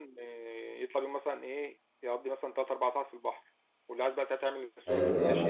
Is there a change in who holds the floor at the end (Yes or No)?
Yes